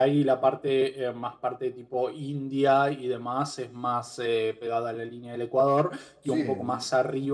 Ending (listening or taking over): listening